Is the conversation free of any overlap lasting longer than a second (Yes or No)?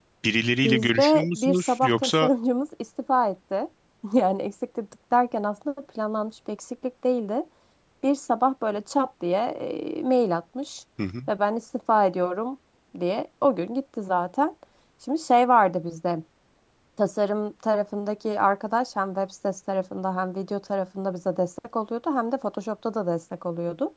No